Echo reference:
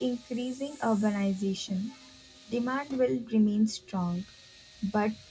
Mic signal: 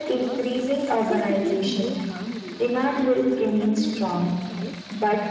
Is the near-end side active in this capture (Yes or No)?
Yes